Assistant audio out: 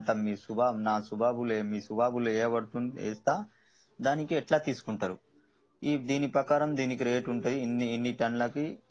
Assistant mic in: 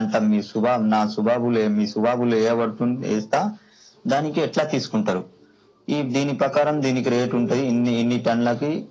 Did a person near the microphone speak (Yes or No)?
No